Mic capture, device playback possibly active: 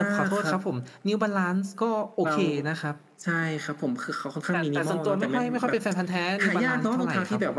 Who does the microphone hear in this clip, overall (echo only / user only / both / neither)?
both